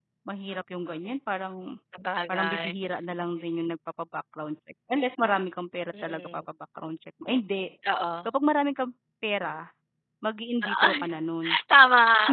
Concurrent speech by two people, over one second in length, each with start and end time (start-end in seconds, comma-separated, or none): none